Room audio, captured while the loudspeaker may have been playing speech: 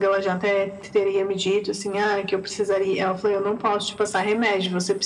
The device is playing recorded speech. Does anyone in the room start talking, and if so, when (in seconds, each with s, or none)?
none